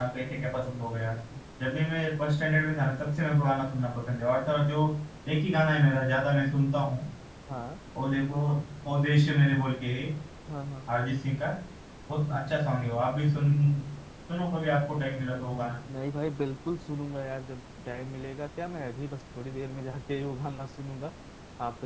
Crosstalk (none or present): none